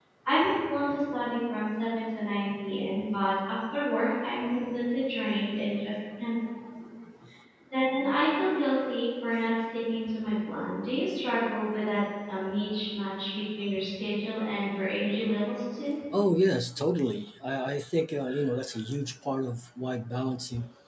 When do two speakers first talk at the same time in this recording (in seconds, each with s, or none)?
none